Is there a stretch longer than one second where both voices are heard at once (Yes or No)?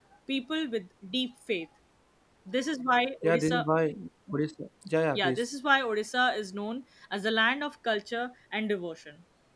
No